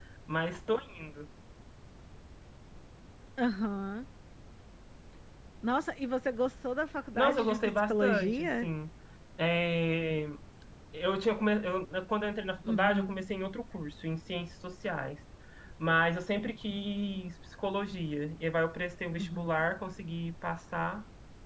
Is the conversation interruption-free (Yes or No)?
No